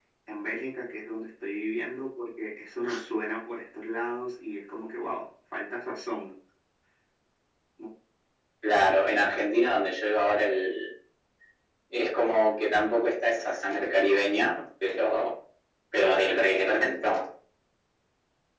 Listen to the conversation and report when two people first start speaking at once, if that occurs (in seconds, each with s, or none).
none